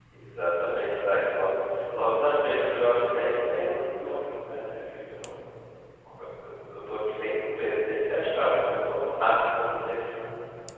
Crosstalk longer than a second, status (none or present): none